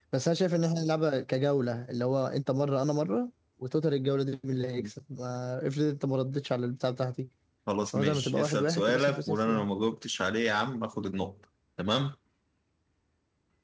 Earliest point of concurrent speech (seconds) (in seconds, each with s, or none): 7.9 s